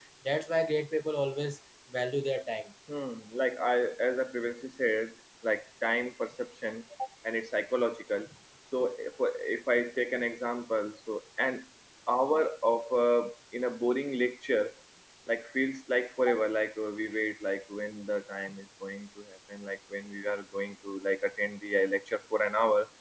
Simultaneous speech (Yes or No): No